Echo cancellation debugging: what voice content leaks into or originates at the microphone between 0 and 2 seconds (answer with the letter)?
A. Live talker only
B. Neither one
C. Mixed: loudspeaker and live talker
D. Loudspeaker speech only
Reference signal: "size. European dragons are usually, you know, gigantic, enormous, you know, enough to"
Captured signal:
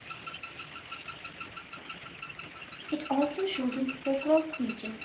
B